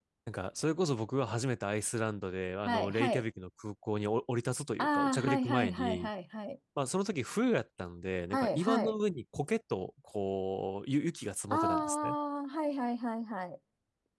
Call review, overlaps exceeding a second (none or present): present